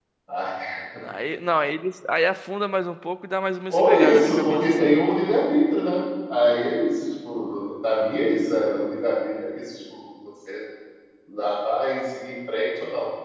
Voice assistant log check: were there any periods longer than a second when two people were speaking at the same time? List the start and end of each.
3.7-4.9

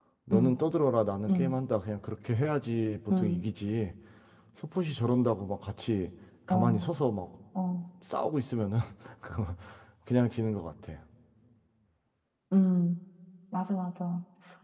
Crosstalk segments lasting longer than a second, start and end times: none

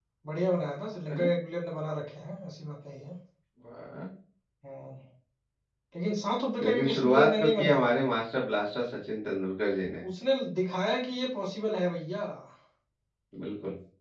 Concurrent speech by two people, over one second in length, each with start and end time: 6.6-7.9

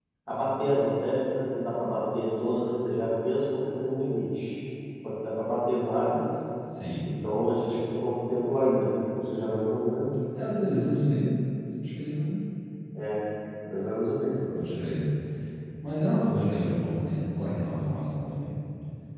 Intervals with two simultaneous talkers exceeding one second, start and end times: none

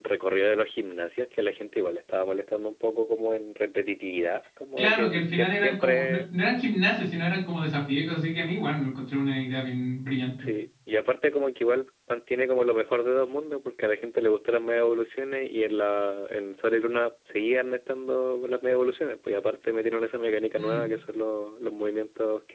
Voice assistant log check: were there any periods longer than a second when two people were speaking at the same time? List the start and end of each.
4.8-6.2

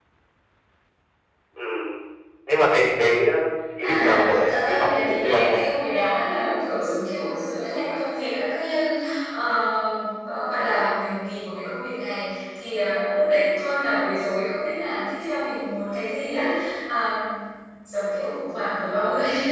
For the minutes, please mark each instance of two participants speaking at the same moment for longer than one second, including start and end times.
3.8-5.6

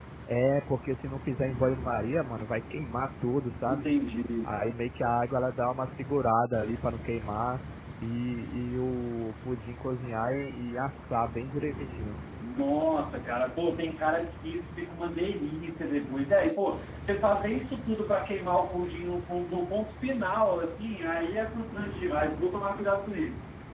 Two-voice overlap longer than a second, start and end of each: none

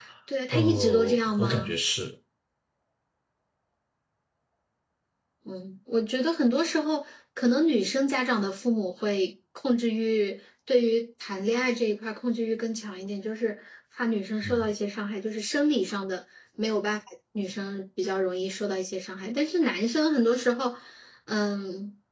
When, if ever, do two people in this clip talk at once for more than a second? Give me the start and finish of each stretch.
0.5-1.7

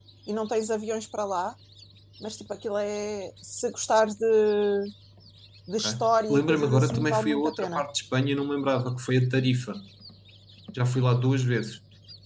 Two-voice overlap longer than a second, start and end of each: 6.3-7.8

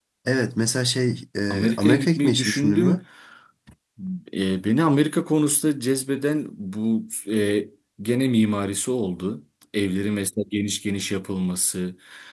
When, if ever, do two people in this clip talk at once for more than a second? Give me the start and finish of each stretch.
1.5-3.0

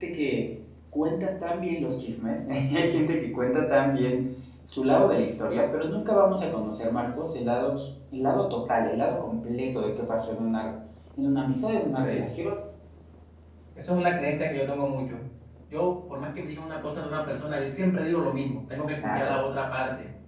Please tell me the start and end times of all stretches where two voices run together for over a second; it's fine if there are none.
none

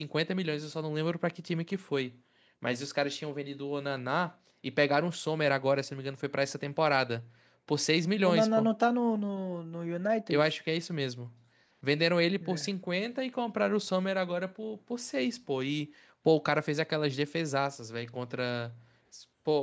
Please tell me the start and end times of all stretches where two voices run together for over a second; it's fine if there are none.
none

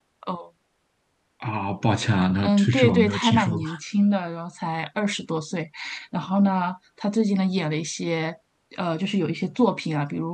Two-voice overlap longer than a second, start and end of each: 2.4-3.6

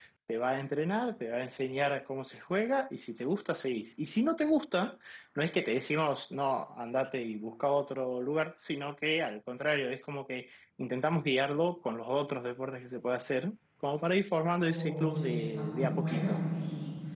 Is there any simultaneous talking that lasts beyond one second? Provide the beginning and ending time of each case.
14.7-16.4

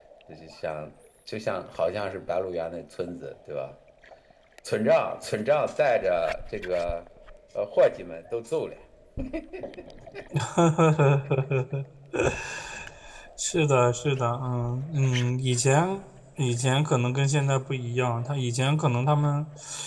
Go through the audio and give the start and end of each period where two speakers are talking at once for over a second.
none

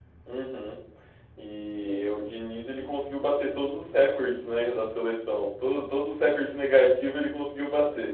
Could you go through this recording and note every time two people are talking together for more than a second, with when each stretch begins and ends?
none

